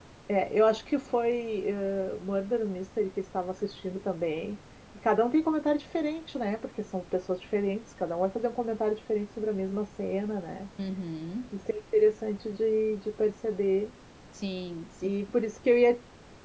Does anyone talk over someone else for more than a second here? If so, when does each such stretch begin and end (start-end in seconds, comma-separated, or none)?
none